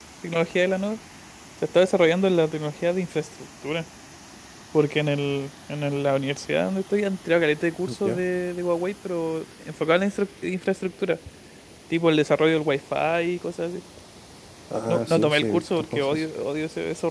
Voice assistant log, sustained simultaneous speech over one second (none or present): present